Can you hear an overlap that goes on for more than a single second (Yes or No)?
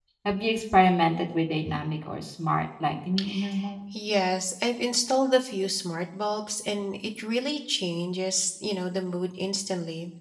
No